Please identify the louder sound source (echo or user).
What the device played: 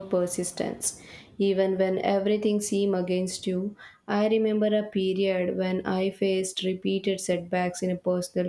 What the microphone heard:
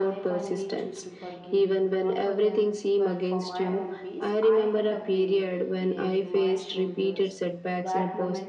echo